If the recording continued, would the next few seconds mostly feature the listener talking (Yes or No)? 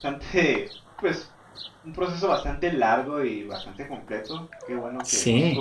No